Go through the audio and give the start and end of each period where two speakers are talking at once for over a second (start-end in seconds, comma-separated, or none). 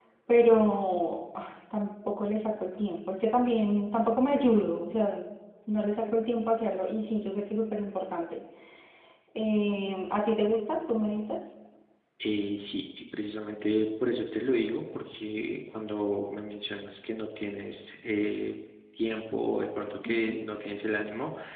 none